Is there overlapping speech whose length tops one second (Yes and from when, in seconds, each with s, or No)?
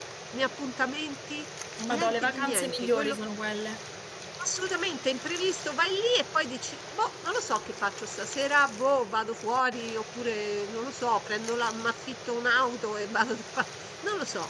Yes, from 1.9 s